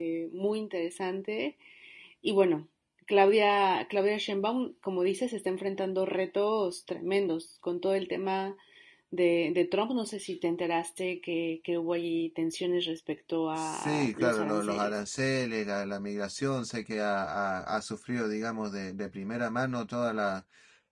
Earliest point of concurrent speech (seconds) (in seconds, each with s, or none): 13.6 s